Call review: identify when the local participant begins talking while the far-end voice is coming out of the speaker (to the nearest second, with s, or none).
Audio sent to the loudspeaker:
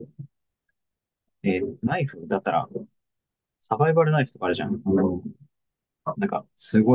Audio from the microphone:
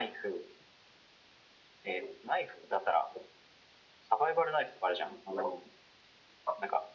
none